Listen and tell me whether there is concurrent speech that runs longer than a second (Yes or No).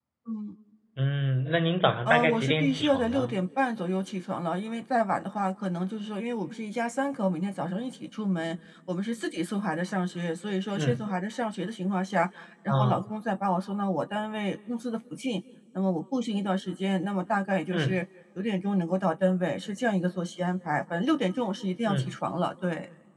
Yes